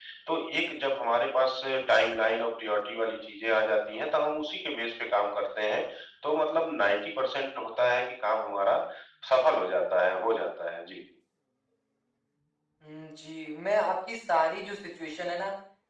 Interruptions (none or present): none